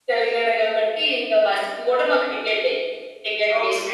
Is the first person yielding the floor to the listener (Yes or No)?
Yes